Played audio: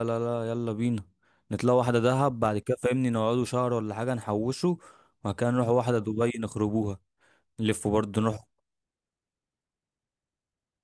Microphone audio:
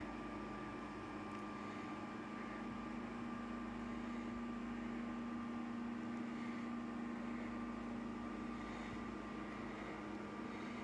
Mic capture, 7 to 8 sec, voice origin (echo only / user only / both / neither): neither